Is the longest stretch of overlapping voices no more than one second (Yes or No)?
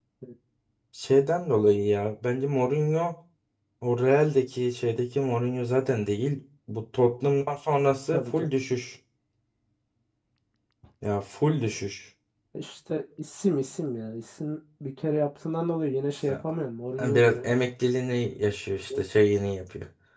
Yes